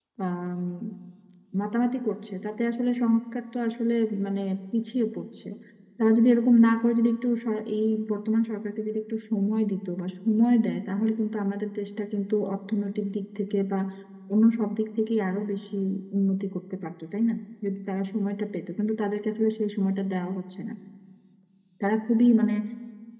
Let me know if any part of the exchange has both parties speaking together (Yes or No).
No